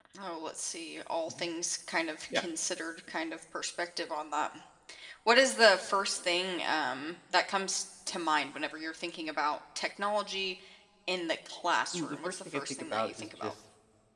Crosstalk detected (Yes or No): Yes